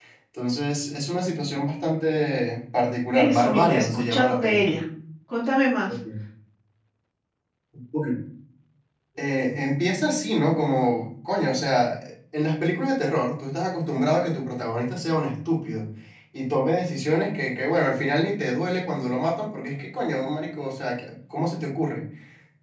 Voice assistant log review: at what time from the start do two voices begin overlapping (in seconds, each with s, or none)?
3.1 s